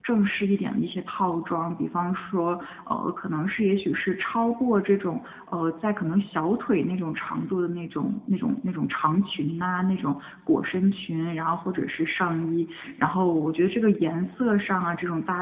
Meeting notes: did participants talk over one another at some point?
No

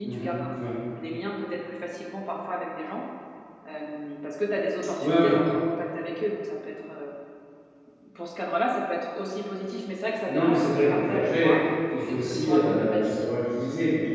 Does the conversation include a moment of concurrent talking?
Yes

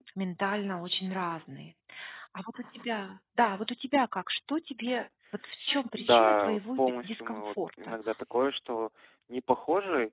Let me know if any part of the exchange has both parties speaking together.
Yes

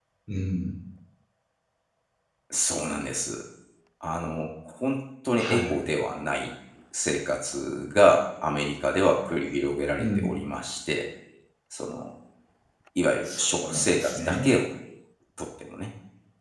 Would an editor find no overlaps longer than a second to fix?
No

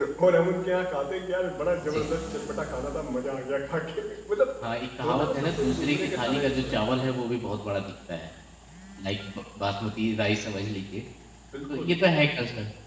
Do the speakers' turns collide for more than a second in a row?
Yes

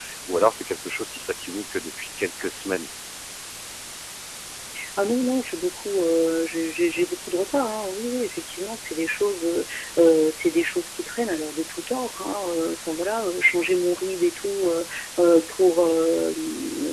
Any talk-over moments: No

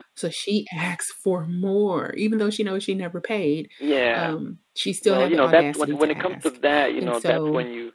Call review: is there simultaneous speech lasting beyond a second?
Yes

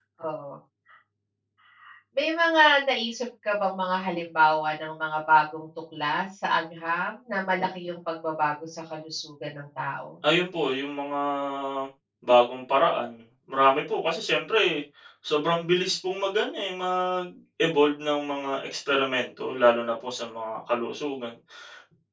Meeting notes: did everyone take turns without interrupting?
Yes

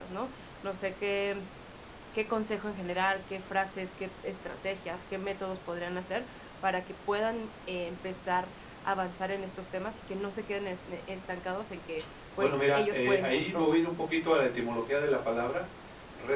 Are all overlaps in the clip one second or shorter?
No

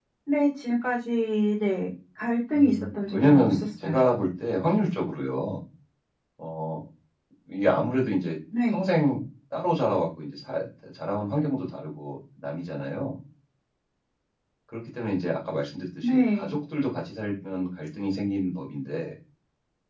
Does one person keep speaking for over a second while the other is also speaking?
Yes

